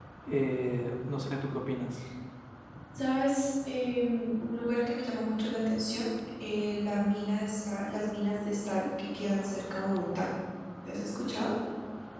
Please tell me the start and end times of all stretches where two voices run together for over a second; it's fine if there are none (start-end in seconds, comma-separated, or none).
none